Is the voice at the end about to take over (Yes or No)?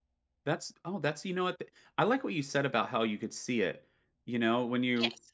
No